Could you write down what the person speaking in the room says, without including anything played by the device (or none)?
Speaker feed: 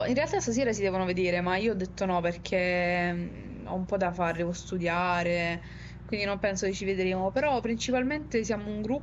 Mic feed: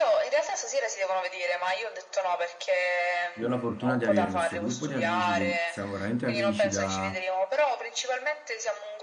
io ho la fortuna di avere questo gruppo di amici che siamo veramente amici da,